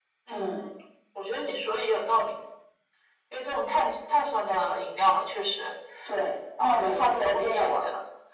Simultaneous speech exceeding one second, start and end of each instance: 6.6-7.8

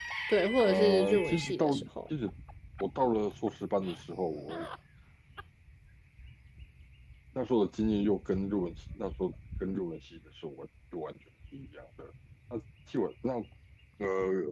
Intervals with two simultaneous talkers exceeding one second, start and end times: 0.6-1.9

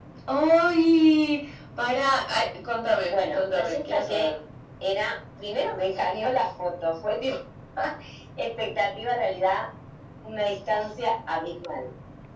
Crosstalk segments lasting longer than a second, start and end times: 3.0-4.3

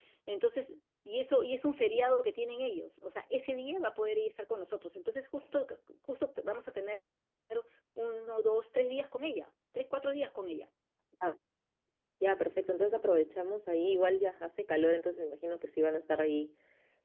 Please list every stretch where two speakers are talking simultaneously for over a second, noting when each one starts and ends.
none

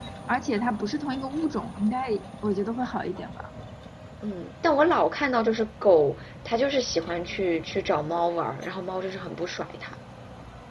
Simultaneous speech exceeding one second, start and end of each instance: none

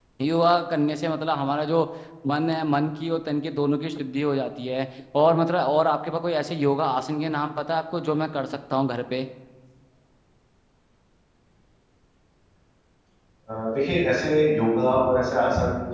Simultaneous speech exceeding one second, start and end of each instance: none

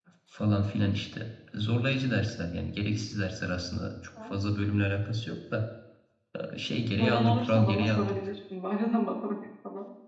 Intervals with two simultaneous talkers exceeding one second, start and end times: 7.0-8.3

